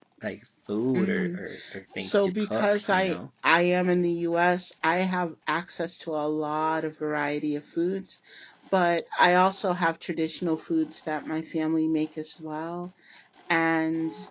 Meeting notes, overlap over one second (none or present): present